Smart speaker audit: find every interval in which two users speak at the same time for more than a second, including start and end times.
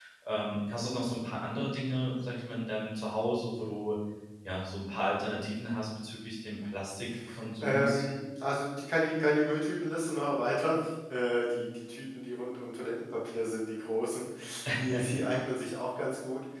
none

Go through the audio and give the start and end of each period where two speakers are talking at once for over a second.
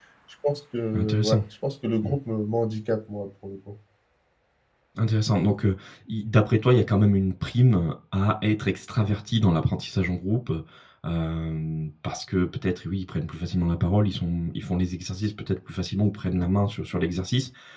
none

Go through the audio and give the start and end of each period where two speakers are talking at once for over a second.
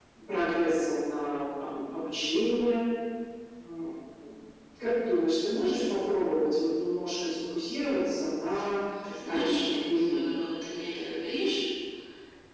9.2-10.5

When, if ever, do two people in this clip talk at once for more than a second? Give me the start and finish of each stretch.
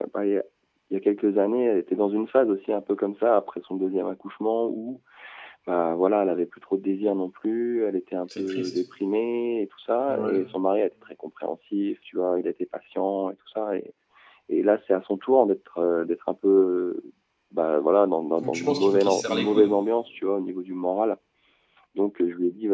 18.4-19.7

